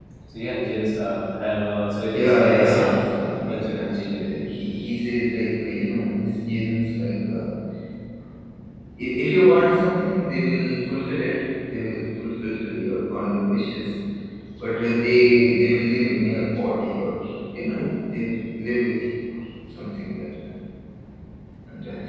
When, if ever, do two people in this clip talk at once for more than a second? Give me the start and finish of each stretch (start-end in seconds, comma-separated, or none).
2.1-4.2